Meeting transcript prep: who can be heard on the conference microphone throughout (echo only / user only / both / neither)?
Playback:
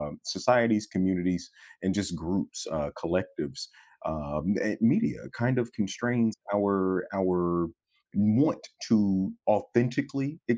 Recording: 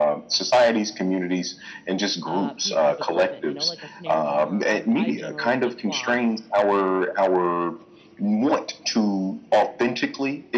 both